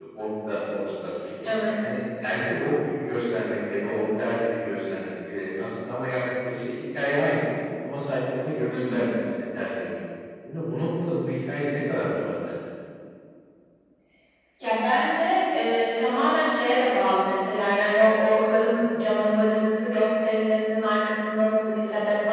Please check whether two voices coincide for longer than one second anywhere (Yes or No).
No